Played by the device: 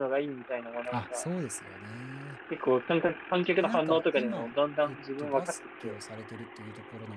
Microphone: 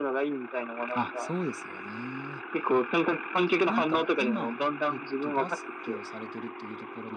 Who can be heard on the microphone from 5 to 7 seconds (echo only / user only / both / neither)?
echo only